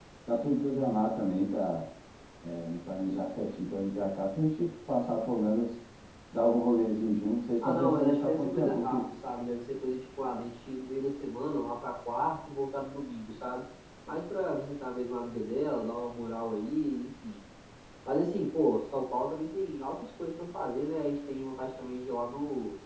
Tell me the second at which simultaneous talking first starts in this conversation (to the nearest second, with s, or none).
8 s